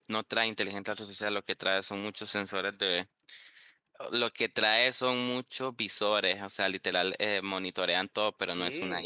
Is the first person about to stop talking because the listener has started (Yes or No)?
Yes